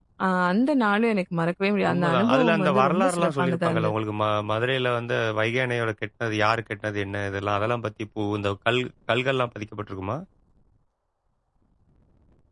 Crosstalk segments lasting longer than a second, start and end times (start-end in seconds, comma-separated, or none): 1.9-3.9